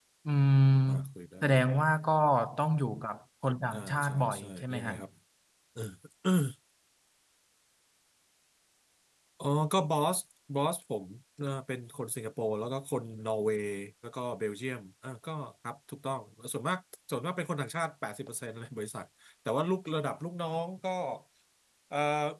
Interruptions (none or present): present